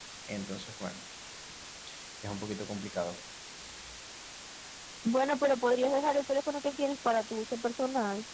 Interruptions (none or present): none